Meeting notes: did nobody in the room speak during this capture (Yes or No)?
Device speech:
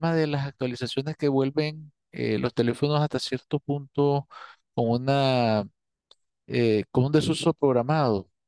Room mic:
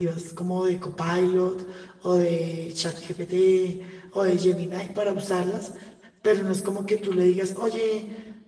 No